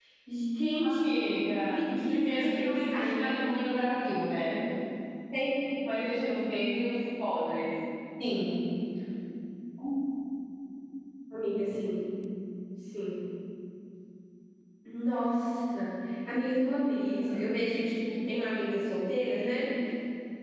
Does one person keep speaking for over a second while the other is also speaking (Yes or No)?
Yes